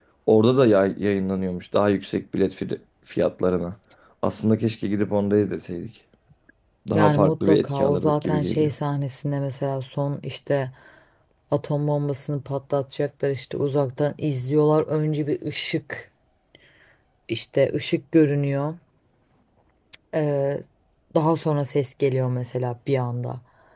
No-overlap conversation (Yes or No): No